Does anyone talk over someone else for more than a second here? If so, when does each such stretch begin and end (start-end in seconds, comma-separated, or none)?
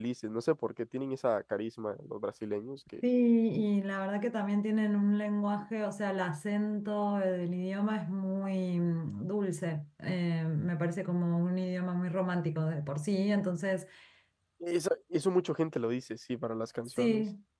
none